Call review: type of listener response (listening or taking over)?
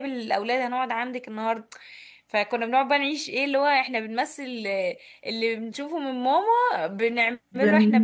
listening